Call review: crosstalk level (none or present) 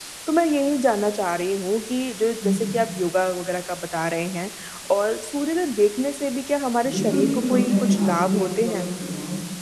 present